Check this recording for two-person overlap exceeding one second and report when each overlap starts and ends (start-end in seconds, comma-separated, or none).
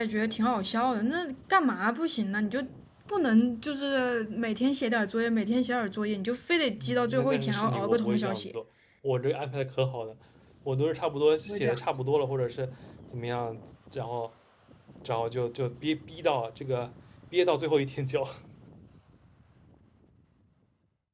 6.8-8.6